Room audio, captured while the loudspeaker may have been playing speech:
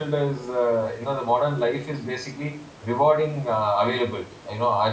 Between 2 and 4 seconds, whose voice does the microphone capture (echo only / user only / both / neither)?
user only